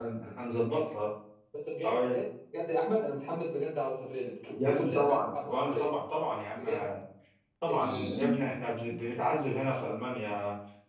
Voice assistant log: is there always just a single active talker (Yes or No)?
No